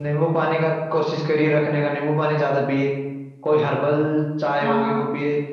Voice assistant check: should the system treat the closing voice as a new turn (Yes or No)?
No